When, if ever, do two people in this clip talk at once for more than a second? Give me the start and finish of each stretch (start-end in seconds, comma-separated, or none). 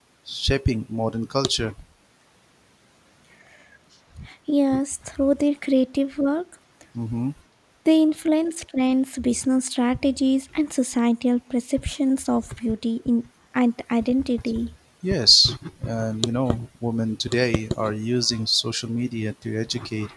none